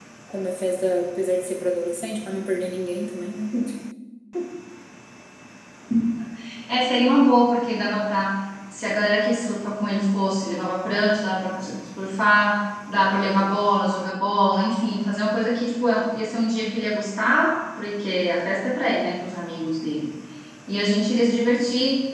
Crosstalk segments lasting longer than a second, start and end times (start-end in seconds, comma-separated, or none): none